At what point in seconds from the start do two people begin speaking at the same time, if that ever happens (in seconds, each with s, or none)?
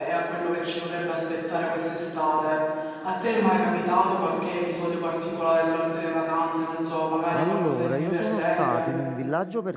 7.3 s